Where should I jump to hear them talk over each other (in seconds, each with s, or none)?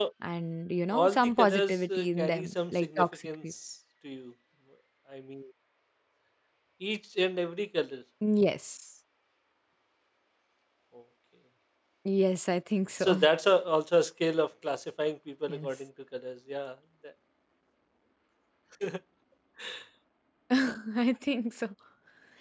0.9 s